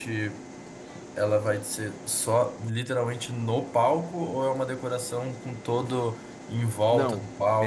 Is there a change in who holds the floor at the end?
Yes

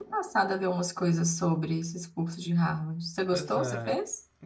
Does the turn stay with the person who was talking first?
No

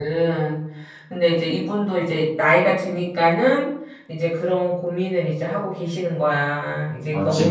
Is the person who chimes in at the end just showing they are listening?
Yes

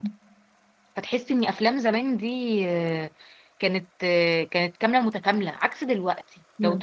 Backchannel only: Yes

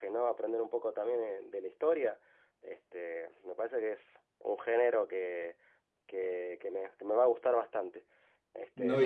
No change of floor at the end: No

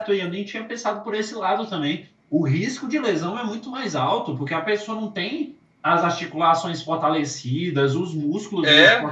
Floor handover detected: No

